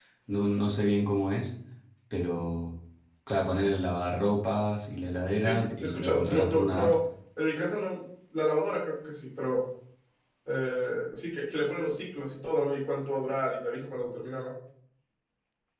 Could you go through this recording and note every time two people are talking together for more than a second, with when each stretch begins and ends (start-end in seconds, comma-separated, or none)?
5.4-6.9